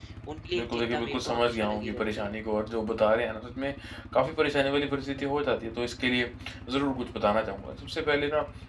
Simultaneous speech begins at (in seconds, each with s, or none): 0.6 s